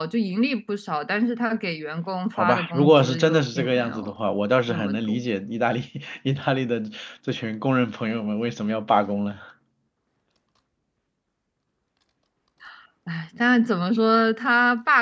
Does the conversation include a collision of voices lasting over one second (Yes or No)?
Yes